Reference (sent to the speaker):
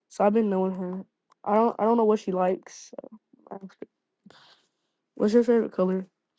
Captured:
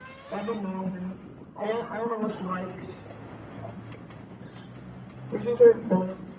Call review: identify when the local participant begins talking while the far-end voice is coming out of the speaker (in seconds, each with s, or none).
none